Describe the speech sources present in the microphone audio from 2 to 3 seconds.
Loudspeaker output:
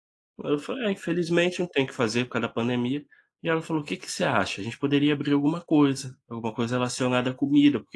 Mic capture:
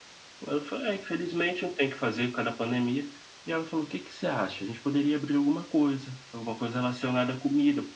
echo only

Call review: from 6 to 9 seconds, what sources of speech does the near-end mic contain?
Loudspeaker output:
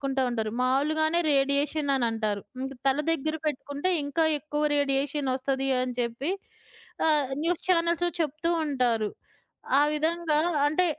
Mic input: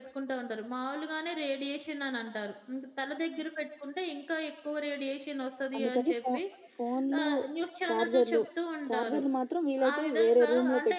both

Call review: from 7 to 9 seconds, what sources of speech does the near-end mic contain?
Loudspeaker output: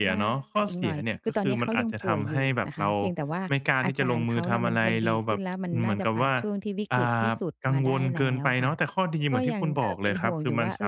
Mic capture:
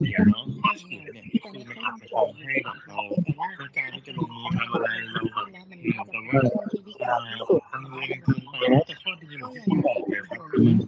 echo only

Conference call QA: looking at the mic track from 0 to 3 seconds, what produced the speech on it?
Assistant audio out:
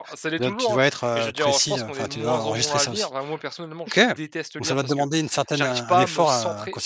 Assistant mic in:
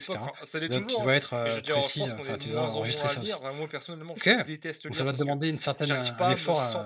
echo only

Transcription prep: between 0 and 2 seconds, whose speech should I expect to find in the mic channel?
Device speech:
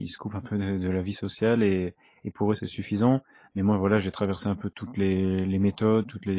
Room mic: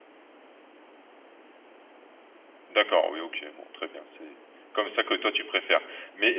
neither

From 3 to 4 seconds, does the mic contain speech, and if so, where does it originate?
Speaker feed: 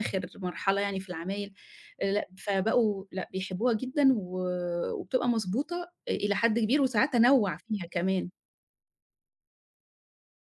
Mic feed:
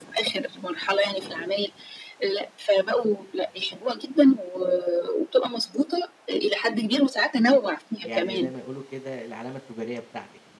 echo only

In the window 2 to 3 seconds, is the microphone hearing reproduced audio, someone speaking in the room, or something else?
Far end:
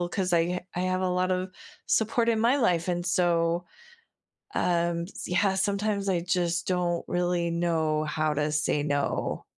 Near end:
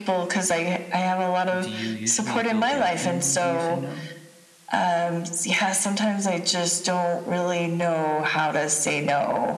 both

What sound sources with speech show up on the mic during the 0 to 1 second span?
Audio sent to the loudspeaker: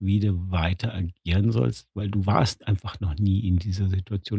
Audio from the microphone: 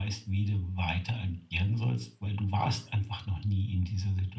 echo only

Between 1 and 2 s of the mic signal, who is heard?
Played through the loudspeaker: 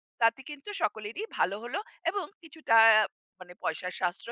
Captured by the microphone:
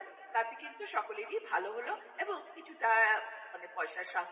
echo only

